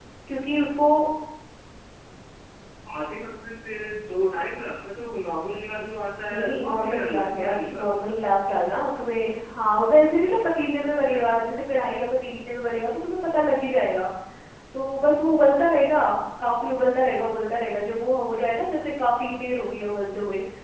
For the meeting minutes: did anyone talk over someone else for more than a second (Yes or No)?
Yes